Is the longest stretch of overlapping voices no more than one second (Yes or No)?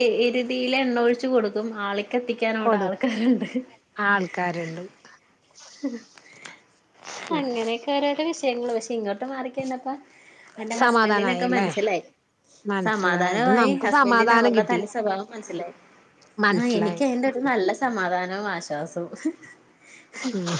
No